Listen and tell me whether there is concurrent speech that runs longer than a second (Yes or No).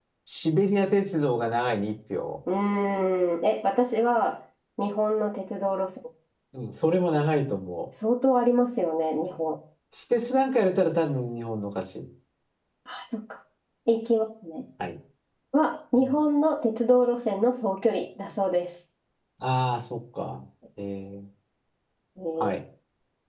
No